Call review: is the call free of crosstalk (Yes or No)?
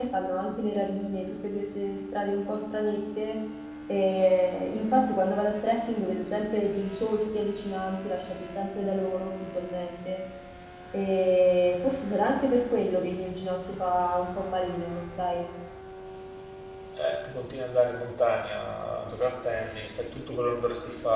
Yes